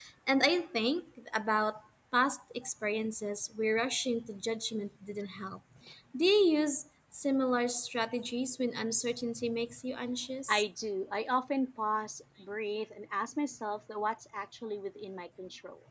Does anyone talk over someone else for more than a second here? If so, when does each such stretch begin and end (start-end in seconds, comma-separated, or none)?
none